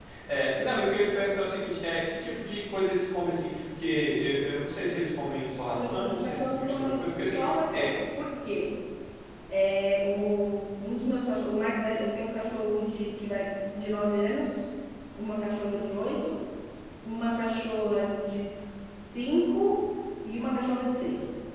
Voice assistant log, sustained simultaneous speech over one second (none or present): present